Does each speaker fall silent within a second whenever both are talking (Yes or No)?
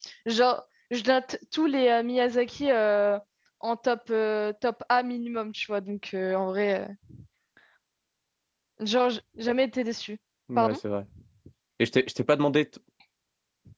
Yes